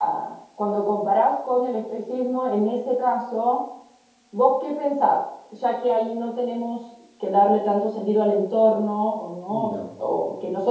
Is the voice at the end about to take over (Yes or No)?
No